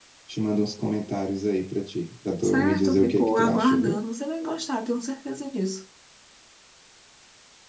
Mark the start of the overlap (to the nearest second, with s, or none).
2 s